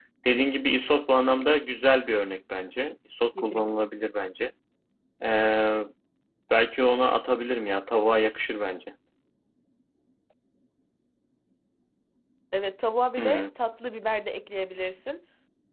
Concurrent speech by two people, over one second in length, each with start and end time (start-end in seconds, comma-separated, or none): none